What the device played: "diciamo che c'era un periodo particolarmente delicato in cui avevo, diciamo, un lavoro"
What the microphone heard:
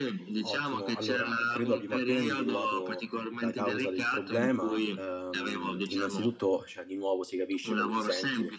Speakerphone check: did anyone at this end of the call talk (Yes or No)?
Yes